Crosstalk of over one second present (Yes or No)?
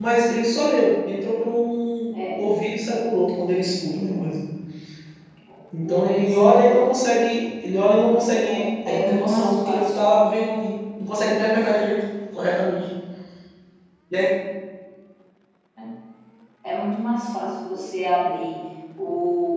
Yes